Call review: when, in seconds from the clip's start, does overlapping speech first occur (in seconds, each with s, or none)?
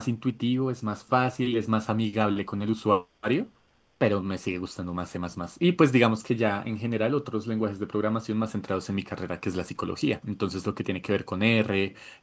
none